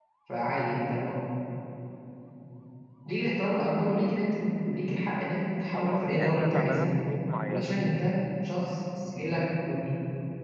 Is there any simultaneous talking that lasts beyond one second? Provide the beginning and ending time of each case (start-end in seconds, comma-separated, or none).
5.7-7.0